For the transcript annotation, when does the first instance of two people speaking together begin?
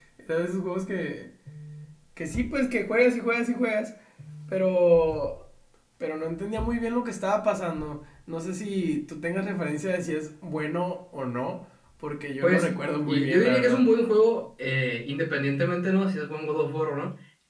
12.4 s

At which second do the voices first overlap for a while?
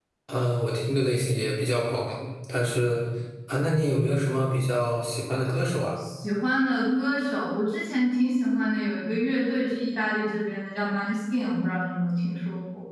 none

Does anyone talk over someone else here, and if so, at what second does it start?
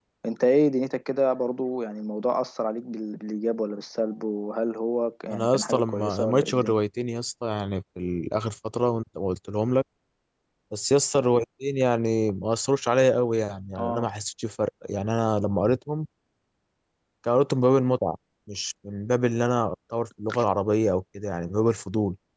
5.3 s

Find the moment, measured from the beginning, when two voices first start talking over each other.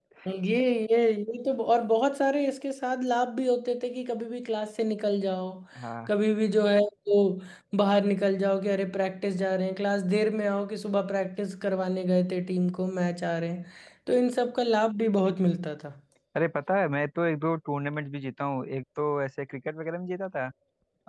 none

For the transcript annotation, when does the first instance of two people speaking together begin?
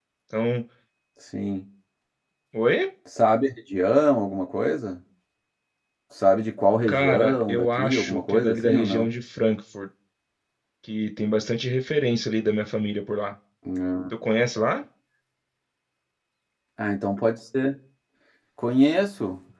6.9 s

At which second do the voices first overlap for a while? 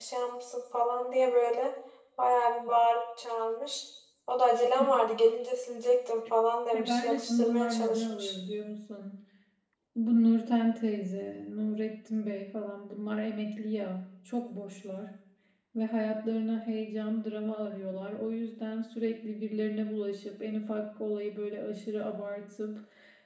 6.7 s

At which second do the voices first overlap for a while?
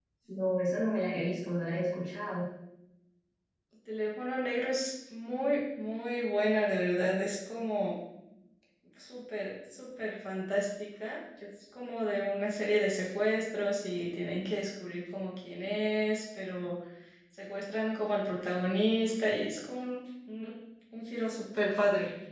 none

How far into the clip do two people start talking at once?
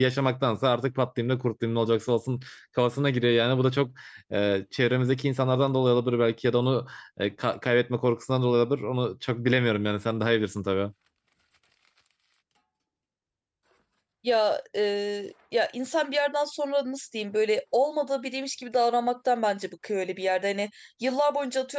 none

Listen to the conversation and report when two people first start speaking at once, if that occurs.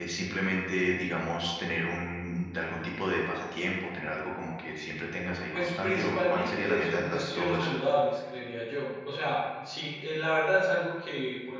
5.5 s

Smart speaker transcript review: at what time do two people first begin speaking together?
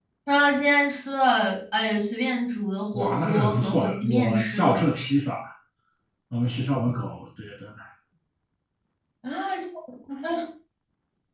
2.9 s

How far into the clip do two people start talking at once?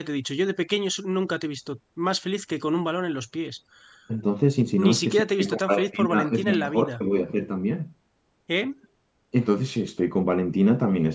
4.8 s

